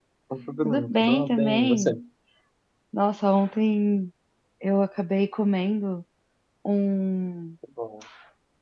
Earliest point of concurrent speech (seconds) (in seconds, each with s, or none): 0.6 s